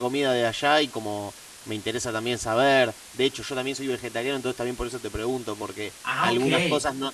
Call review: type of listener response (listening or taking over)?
listening